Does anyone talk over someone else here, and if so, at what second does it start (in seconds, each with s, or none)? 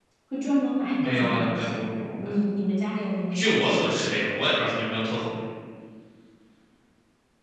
1.0 s